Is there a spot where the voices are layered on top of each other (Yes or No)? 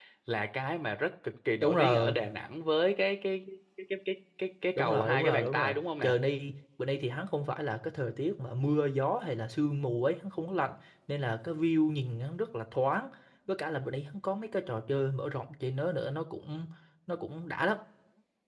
Yes